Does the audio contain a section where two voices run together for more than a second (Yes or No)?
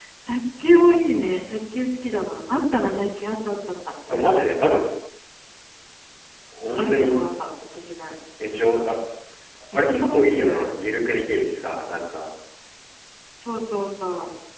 Yes